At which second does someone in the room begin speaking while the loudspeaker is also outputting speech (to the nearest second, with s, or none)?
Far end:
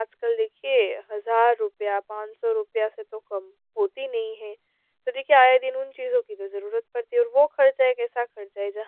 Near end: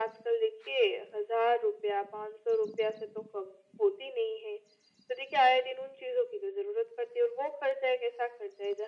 none